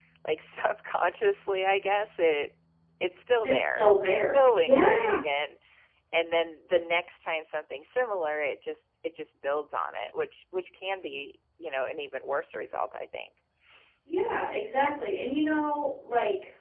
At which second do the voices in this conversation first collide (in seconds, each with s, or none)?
3.4 s